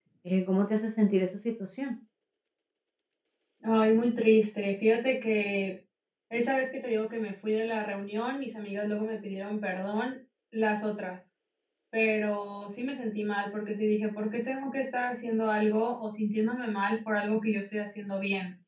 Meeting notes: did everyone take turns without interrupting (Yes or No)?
Yes